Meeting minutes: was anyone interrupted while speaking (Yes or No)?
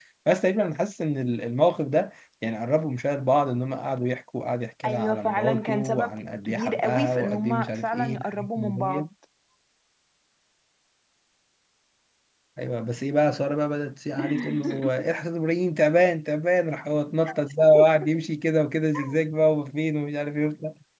Yes